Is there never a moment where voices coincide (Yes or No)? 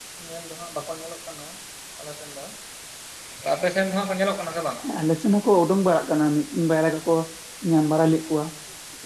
Yes